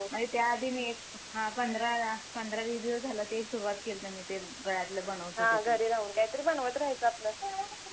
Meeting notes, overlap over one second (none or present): none